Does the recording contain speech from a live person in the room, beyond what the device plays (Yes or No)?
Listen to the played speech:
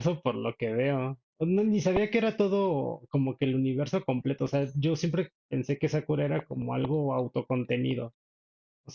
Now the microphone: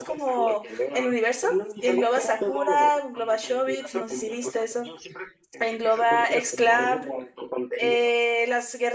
Yes